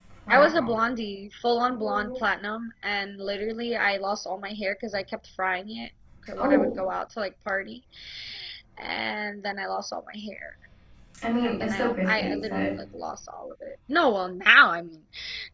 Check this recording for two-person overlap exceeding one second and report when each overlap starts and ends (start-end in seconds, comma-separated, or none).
11.4-12.7